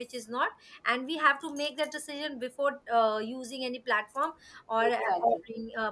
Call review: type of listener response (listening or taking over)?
listening